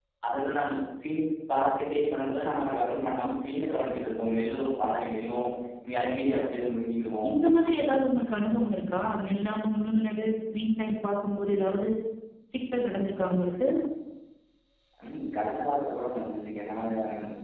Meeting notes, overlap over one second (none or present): none